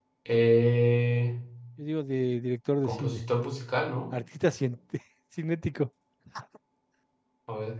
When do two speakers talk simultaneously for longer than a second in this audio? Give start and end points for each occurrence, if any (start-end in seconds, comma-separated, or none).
none